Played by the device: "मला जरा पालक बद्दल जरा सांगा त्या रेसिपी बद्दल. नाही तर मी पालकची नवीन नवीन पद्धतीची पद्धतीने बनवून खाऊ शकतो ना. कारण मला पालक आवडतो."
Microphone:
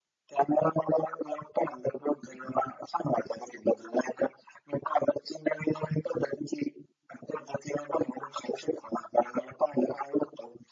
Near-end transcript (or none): none